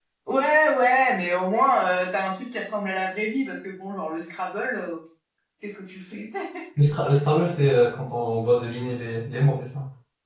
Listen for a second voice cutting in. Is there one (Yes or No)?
No